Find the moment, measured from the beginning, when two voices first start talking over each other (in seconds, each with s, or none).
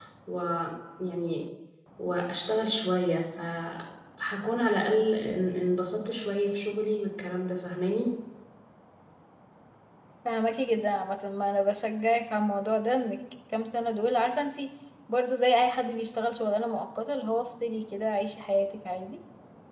none